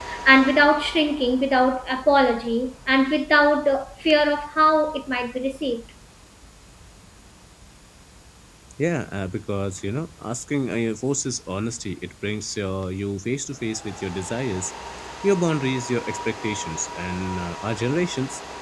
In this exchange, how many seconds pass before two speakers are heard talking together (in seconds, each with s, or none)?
none